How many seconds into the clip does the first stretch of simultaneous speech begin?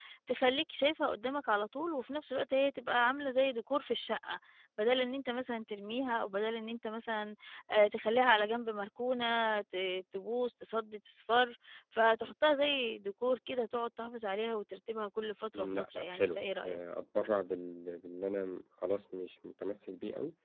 15.5 s

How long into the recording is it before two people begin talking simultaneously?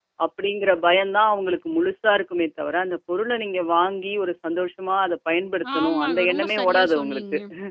5.6 s

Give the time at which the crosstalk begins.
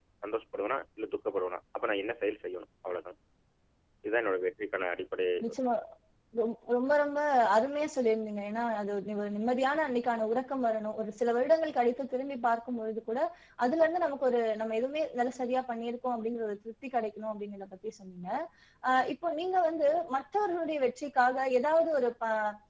none

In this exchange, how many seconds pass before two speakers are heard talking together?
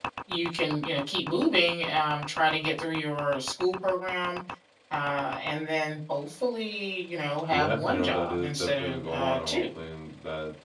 7.5 s

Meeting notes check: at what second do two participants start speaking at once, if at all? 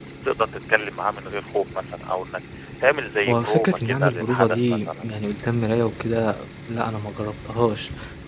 3.2 s

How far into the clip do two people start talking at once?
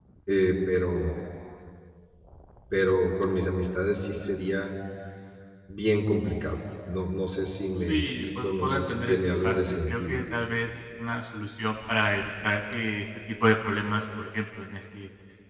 7.9 s

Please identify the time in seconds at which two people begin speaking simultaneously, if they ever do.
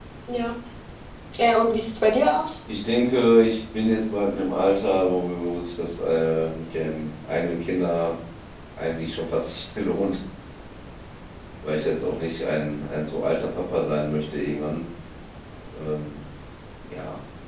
none

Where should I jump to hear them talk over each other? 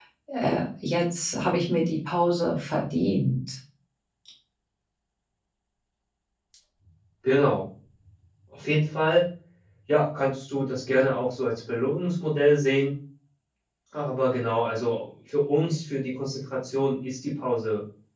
none

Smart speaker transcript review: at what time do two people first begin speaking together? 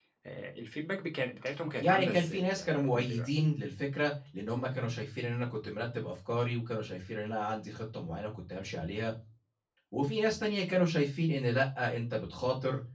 1.8 s

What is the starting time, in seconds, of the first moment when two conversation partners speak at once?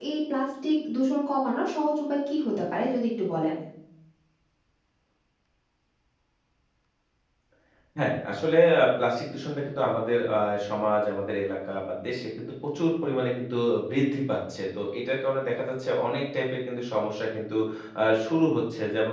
none

